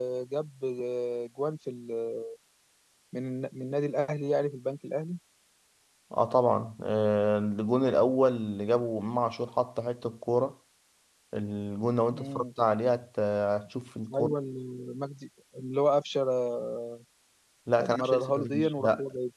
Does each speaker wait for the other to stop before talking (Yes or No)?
No